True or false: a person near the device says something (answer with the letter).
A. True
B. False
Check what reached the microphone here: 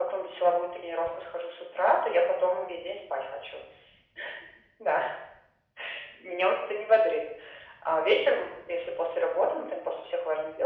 B